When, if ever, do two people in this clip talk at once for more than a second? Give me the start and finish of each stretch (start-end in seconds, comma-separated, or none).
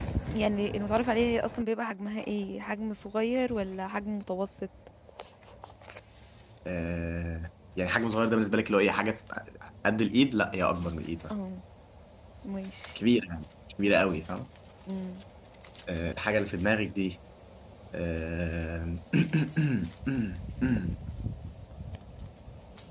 none